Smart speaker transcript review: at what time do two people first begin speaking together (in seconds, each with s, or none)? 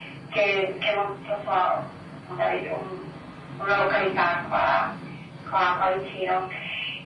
none